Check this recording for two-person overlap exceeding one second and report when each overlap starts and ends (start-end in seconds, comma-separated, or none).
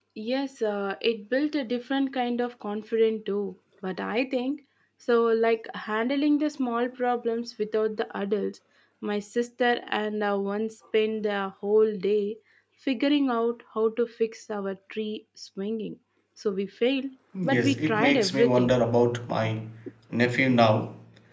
17.4-18.8